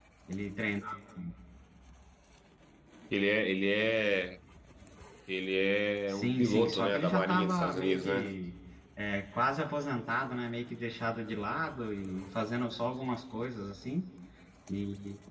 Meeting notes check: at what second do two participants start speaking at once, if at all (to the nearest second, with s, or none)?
6 s